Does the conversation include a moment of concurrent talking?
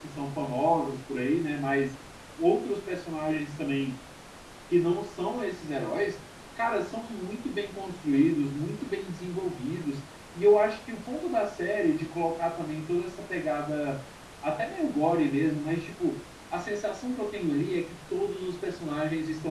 No

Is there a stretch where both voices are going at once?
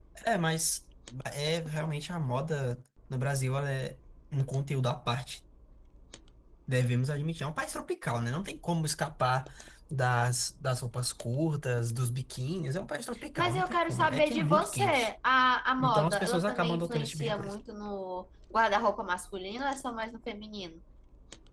Yes, from 13.4 s

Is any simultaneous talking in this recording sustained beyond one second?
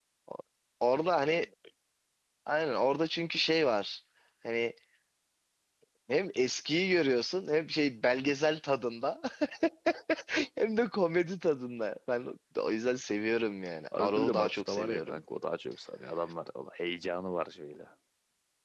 Yes, from 13.9 s

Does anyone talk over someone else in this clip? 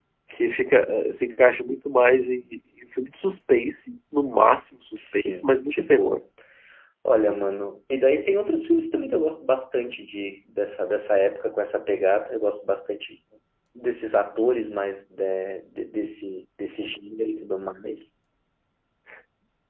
Yes, from 5.0 s

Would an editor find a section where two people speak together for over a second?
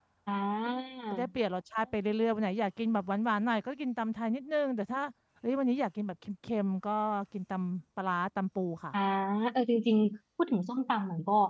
No

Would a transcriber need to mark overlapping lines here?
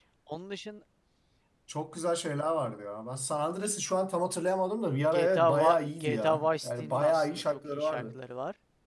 Yes, from 5.1 s

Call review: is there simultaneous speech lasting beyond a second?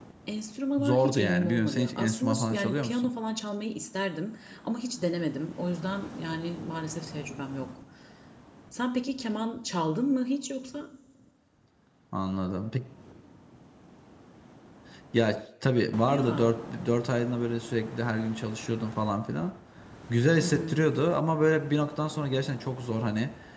Yes, from 0.8 s

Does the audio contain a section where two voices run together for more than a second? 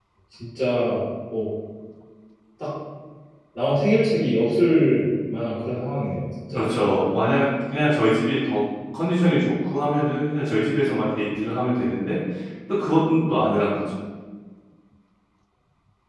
No

